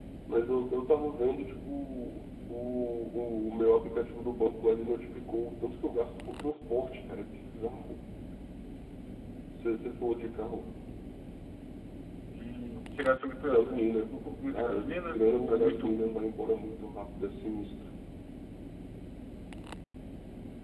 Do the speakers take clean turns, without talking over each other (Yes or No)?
No